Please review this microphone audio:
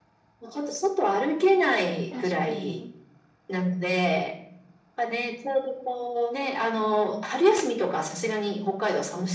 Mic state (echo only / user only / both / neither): both